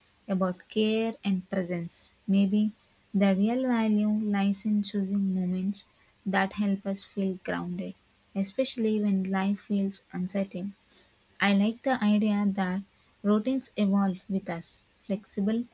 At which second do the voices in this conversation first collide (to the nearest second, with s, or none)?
none